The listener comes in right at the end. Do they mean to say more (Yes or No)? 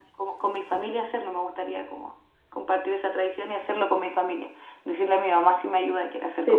Yes